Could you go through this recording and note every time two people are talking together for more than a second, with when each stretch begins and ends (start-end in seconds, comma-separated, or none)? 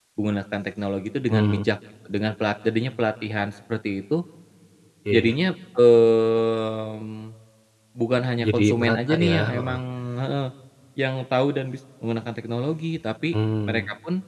8.4-9.8